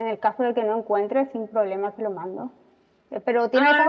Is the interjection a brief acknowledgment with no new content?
Yes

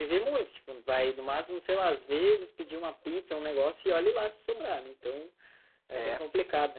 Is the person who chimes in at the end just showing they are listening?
Yes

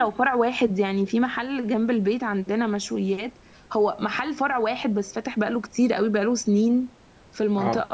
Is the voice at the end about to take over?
No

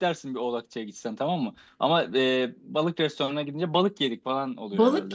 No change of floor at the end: No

